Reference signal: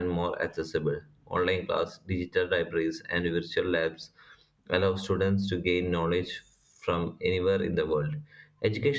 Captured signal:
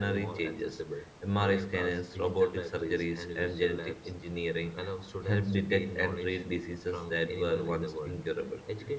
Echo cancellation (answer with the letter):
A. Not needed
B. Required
B